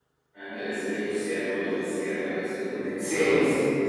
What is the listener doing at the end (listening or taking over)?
listening